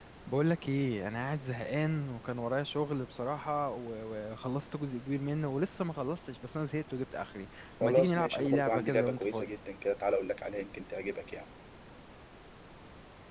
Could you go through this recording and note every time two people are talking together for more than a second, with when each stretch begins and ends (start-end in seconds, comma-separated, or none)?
7.8-9.5